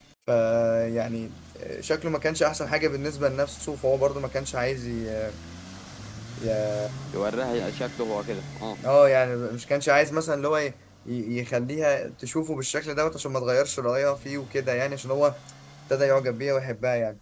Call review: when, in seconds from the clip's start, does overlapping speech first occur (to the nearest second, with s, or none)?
none